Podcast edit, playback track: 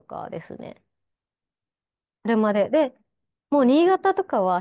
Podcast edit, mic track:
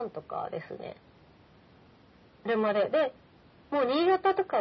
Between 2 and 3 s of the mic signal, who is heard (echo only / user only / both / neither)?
echo only